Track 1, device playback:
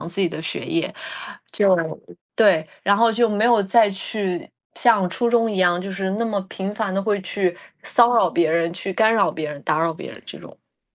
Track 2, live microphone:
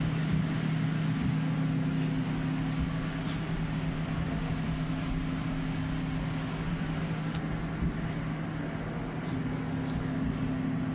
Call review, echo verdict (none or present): none